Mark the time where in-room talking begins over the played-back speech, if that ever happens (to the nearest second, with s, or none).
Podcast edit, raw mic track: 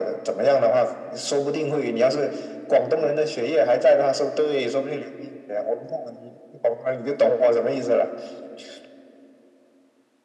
none